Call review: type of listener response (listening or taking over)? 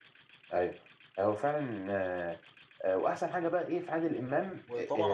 taking over